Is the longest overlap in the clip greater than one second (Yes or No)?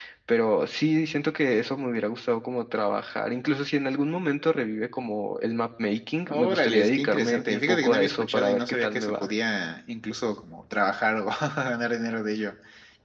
Yes